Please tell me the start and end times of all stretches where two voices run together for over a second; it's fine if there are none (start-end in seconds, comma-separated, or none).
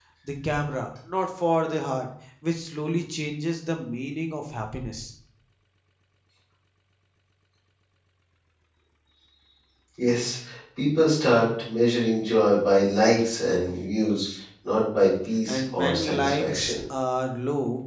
15.5-16.8